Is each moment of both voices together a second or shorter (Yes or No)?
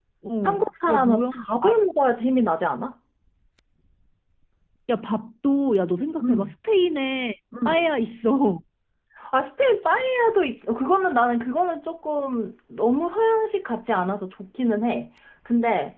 No